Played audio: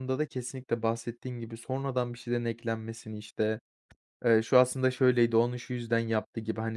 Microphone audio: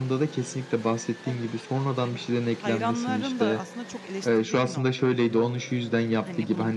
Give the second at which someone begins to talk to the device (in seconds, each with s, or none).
1.2 s